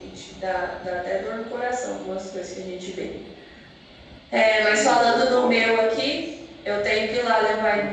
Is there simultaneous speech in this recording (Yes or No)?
Yes